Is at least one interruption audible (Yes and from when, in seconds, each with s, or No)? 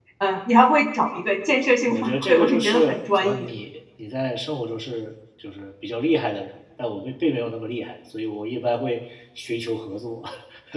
Yes, from 1.8 s